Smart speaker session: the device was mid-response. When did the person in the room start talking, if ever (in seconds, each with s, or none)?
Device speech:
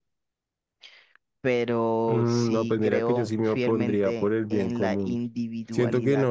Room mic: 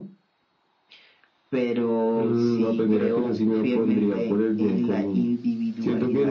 none